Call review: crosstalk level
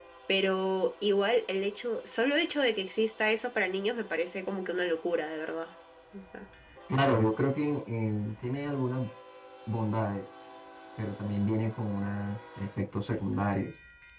none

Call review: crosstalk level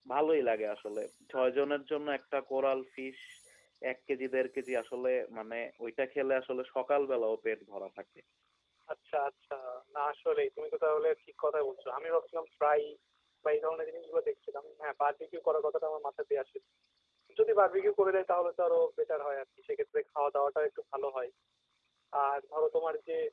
none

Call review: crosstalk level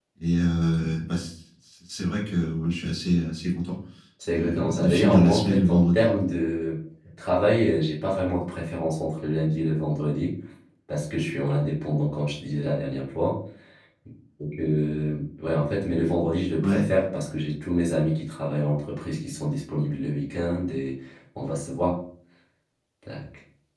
present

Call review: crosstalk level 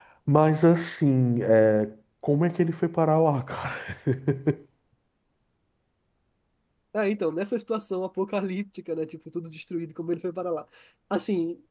none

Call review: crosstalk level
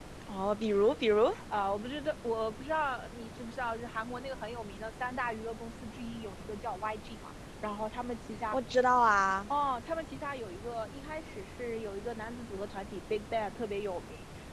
none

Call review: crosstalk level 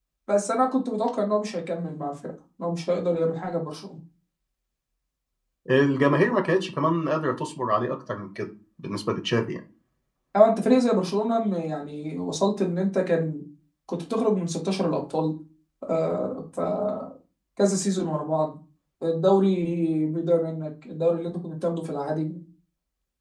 none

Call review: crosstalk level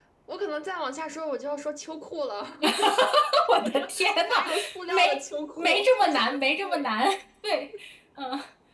present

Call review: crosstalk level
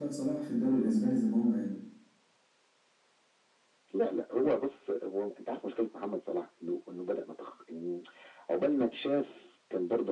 none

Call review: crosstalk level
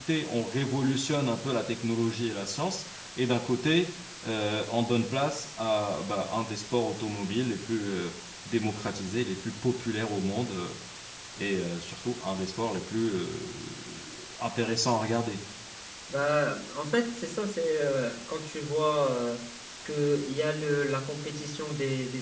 none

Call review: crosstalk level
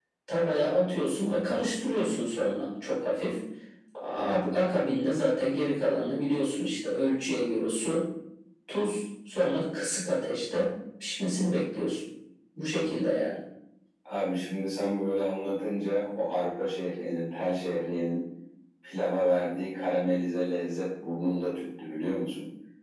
none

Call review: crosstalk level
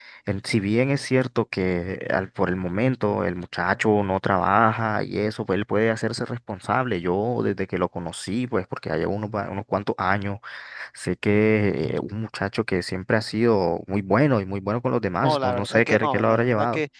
present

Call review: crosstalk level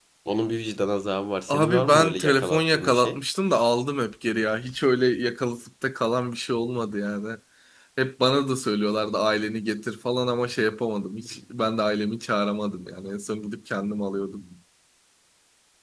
present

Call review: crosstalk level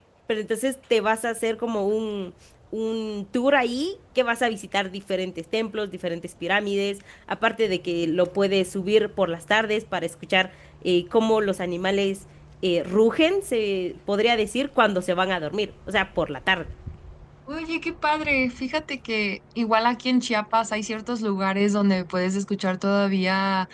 none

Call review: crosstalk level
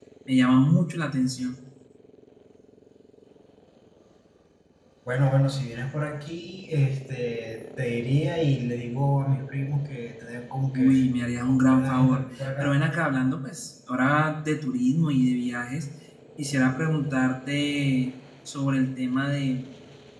present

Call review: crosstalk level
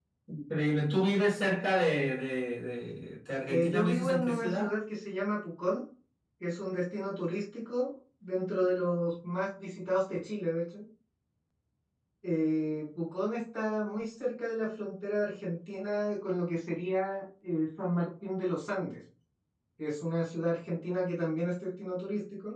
present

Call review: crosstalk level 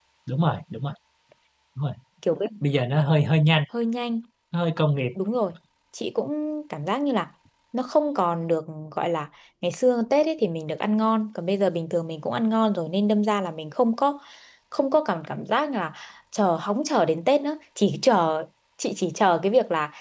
none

